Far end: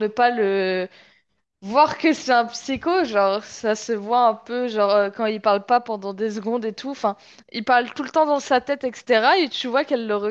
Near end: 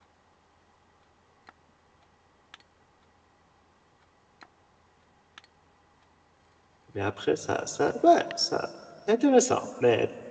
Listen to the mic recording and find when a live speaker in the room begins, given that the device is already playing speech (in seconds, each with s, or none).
6.9 s